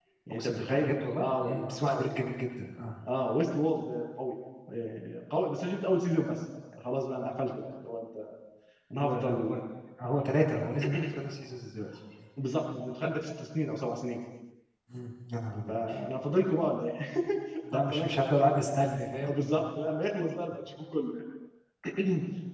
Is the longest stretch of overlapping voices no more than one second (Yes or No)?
No